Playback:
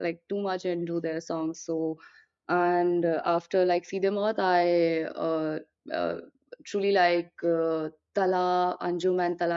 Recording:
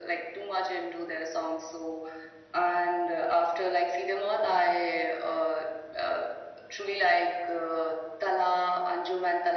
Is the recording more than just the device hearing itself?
No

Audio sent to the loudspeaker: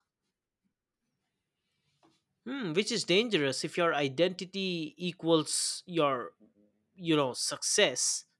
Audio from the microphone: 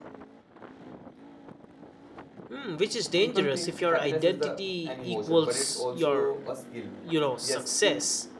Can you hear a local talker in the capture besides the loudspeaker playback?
Yes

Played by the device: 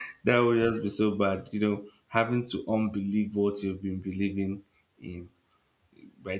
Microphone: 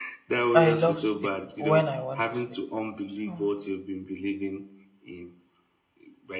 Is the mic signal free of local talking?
No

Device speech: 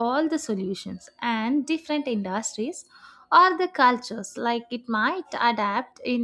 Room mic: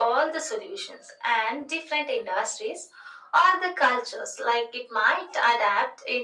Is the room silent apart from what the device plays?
Yes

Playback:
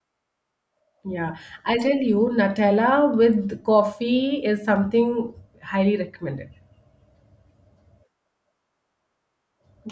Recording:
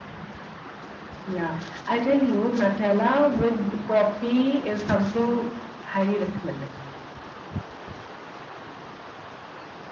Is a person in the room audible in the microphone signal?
No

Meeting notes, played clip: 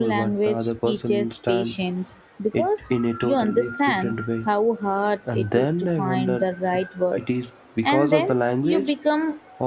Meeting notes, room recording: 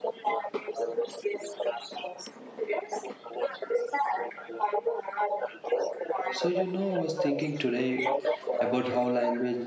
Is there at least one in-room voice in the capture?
Yes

